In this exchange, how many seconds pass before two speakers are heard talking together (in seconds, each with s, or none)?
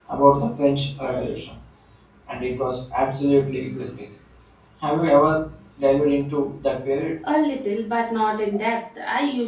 none